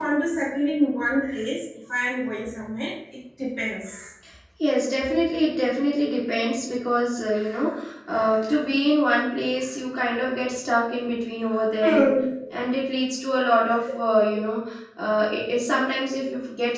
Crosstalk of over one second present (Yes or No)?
No